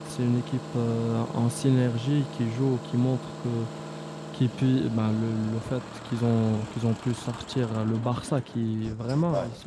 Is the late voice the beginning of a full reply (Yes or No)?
No